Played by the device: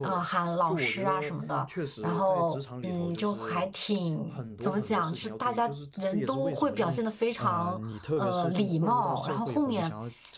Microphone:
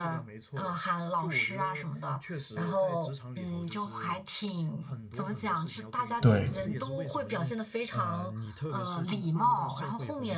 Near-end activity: present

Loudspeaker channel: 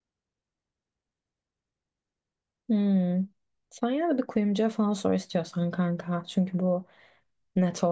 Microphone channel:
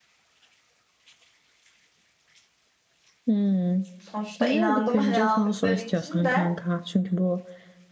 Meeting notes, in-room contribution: present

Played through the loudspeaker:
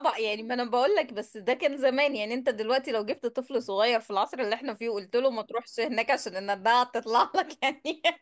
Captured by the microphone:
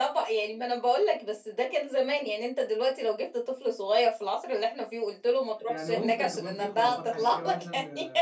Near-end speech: present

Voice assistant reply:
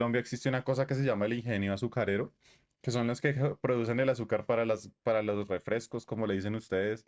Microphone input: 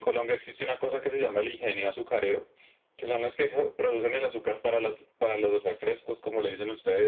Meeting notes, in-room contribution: none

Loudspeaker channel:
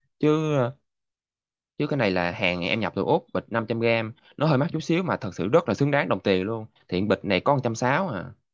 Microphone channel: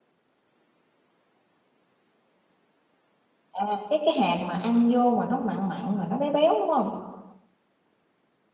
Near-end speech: present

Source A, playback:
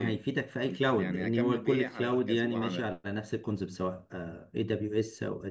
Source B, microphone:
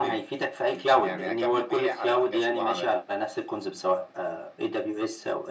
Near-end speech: none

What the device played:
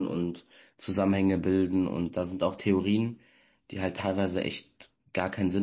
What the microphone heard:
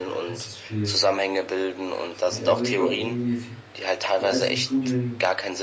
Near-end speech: present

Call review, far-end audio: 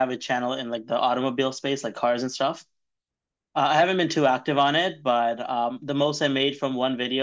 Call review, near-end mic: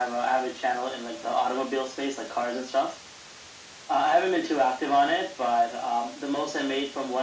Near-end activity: none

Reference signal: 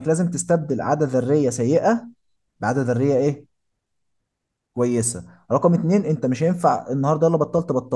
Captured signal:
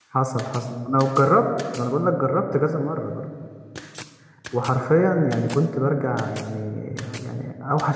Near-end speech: present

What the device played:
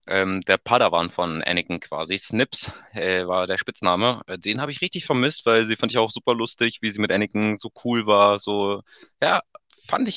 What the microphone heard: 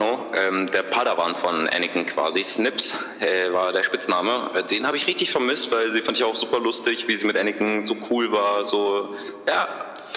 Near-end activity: none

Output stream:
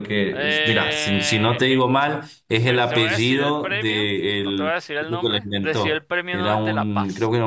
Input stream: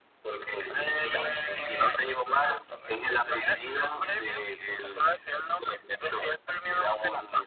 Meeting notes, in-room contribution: present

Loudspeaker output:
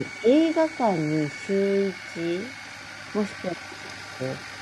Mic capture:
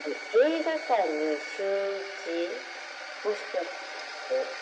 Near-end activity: none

